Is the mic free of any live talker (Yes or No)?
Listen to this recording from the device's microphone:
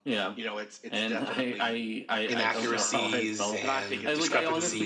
No